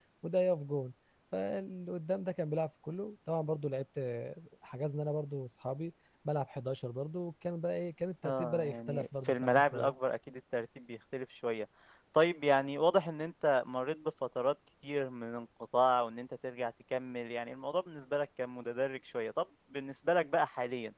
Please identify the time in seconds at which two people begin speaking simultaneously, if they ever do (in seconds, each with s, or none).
8.2 s